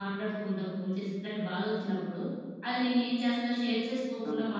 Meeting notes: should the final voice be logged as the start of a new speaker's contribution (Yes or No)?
No